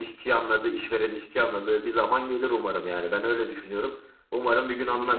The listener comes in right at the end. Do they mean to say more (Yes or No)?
Yes